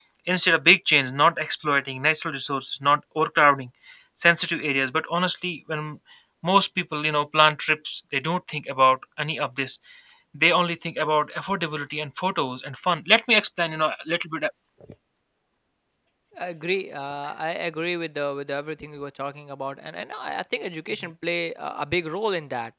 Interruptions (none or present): none